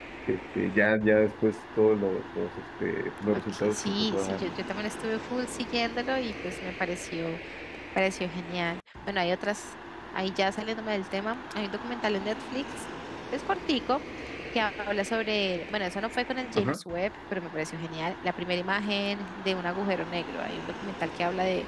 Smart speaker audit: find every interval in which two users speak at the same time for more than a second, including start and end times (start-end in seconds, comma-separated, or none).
3.3-4.5